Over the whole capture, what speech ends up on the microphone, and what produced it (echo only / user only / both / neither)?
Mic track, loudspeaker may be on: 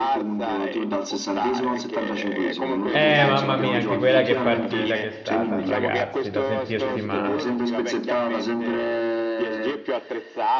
both